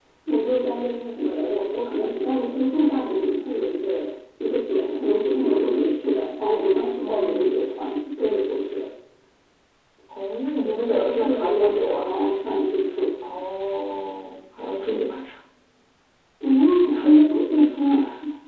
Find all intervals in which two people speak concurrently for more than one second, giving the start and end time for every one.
10.6-12.1

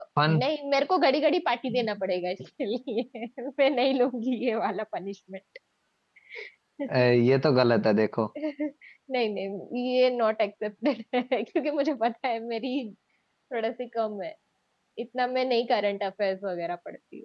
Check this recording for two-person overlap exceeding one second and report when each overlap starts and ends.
none

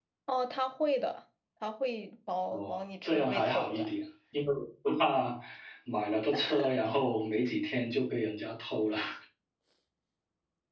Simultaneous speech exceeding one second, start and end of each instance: 2.5-3.9

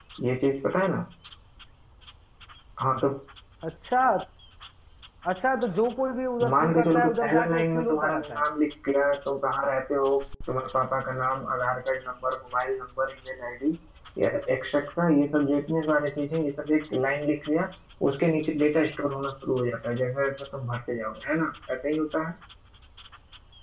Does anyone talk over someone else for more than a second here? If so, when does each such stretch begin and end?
6.5-8.4

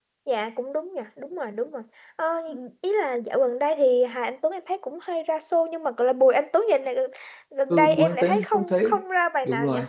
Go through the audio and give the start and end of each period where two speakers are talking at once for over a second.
7.7-8.9

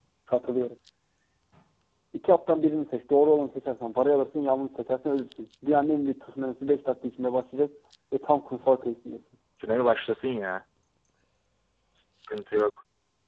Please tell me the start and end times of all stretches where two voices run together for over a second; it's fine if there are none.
none

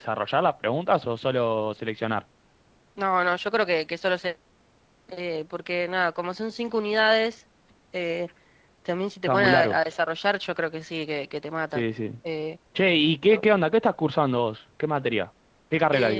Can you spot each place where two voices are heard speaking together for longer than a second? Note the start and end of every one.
none

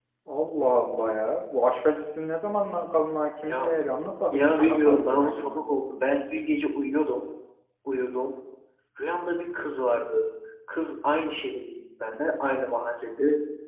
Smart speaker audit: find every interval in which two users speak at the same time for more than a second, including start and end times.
4.3-5.6

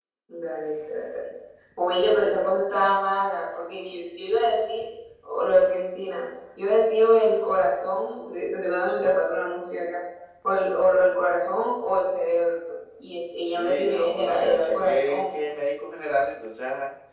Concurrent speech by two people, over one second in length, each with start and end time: 13.5-15.4

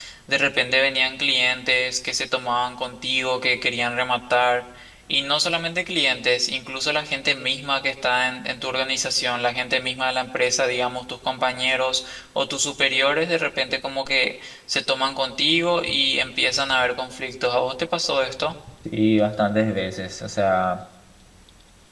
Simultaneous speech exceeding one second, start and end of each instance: none

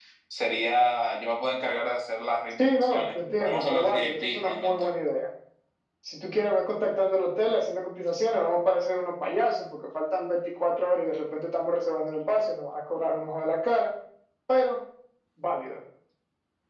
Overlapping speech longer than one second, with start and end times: 2.6-4.9

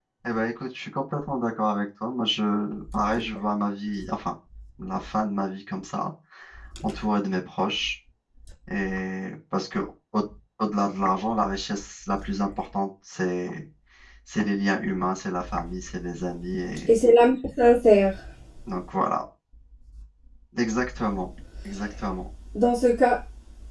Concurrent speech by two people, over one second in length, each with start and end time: none

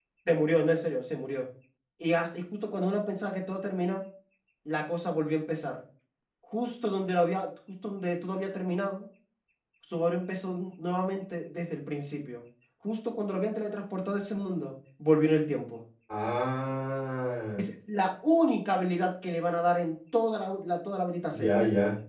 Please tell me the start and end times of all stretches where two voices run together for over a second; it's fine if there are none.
none

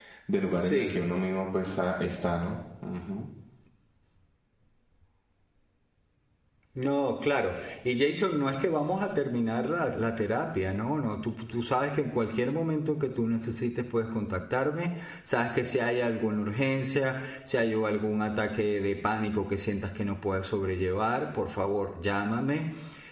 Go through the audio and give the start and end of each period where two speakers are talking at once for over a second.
none

